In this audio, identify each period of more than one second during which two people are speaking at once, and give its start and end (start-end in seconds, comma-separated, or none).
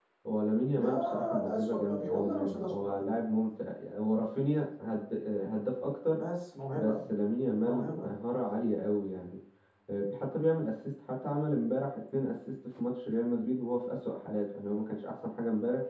0.8-3.1